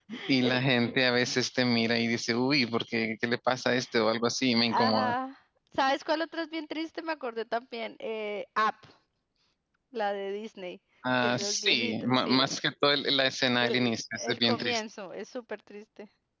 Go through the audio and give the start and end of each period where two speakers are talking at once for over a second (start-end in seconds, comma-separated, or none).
11.2-12.5, 13.5-14.8